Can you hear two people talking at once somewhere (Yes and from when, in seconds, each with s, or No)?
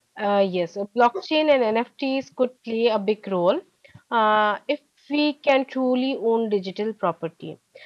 No